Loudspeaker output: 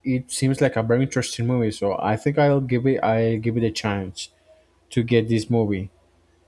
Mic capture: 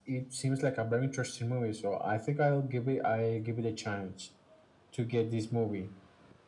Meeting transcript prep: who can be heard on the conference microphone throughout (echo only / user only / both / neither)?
echo only